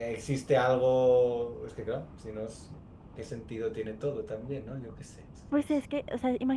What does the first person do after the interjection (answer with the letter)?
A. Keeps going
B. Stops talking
B